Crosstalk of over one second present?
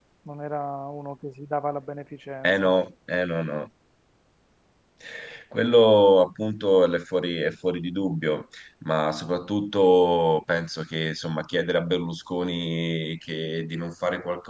No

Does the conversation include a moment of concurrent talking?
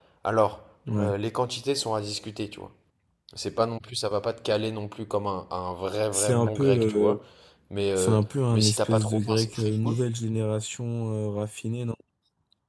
Yes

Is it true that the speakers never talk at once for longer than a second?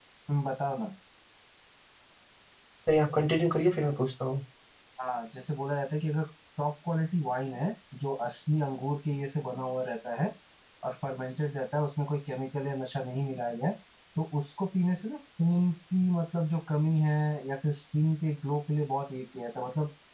Yes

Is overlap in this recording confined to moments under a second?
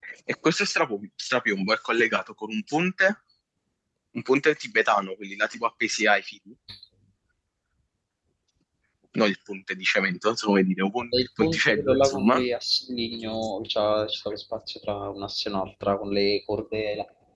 No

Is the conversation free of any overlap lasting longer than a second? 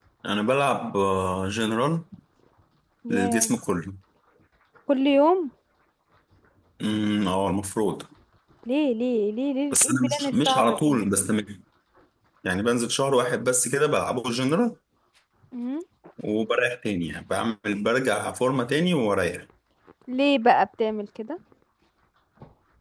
No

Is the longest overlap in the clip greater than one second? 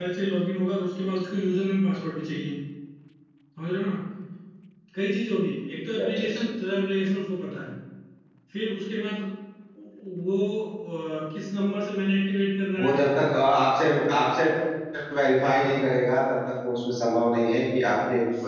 No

